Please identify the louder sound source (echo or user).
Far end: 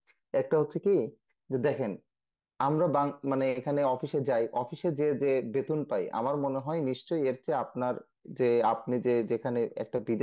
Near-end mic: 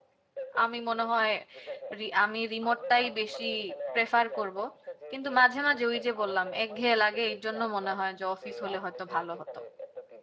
user